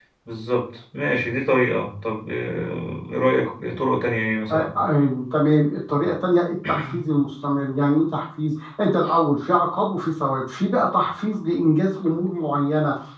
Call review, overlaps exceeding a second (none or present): none